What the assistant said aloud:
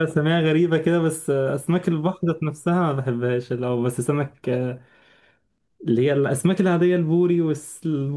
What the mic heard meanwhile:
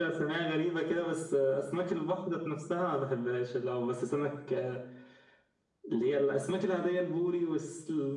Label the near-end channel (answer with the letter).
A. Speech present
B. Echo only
B